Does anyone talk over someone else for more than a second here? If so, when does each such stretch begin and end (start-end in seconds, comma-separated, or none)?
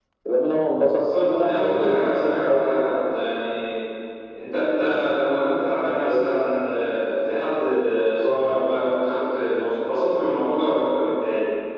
0.9-2.7